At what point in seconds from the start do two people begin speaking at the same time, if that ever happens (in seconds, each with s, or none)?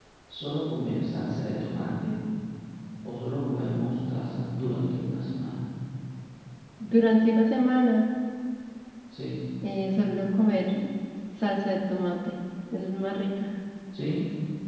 none